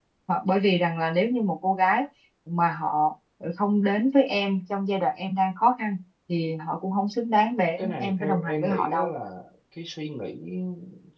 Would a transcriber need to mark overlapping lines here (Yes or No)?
Yes